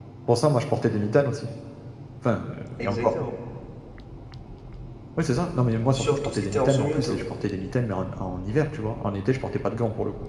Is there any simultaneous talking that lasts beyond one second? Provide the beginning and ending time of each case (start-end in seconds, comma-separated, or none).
5.9-7.2